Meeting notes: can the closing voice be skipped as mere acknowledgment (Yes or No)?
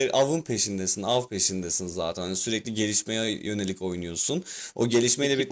No